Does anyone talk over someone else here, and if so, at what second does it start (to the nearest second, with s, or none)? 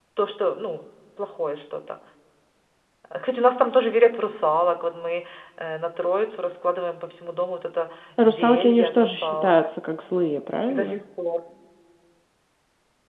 8 s